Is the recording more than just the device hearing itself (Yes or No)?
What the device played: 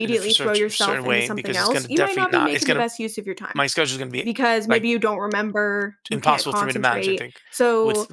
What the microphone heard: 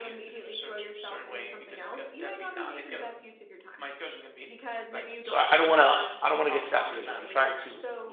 Yes